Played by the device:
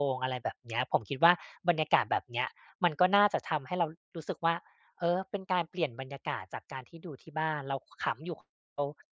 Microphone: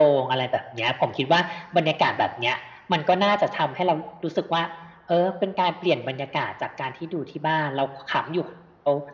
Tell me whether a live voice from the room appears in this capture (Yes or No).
No